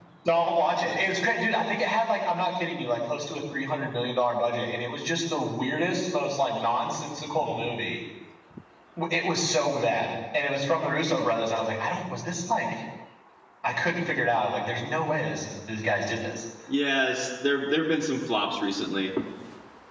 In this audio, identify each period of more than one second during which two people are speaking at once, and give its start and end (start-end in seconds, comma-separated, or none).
none